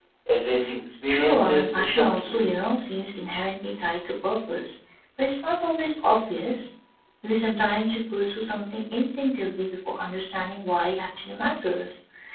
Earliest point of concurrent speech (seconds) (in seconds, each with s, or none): 1.1 s